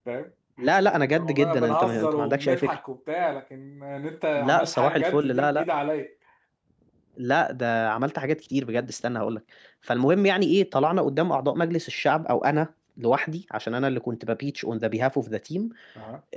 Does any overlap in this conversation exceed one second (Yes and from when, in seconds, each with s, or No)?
Yes, from 1.1 s